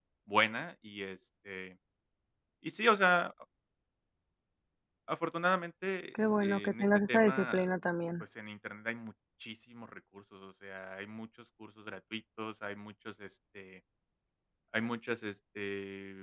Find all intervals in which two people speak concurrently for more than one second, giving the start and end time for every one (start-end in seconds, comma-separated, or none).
6.4-7.7